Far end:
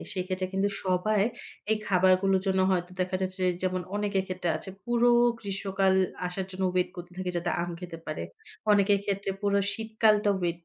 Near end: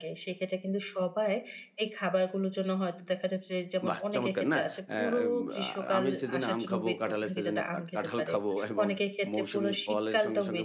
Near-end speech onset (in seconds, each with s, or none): 3.9 s